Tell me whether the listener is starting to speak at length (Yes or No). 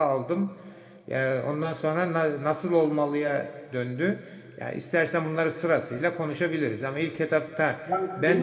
Yes